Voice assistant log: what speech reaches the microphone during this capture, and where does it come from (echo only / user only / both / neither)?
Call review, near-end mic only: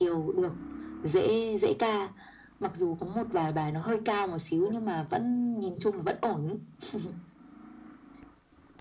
echo only